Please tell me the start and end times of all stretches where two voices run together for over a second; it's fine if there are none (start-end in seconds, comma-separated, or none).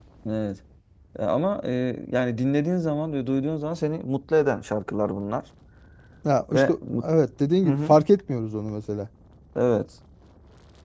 none